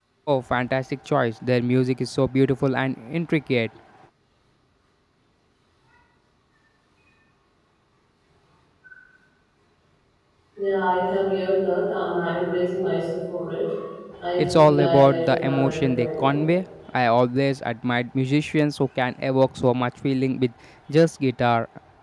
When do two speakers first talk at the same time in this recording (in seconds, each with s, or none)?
14.4 s